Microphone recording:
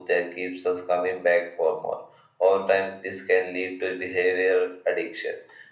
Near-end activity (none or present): none